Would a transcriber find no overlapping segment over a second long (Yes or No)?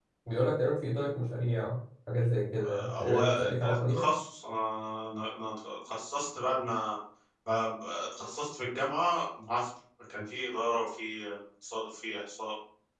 No